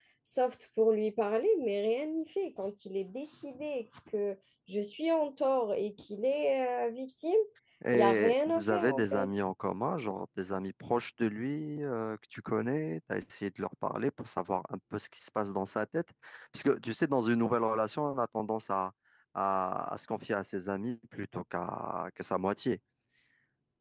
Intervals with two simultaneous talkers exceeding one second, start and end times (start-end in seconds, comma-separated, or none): 7.9-9.3